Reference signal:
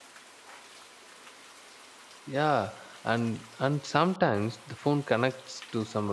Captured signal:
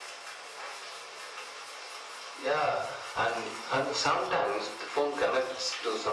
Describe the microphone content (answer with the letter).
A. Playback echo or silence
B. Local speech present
A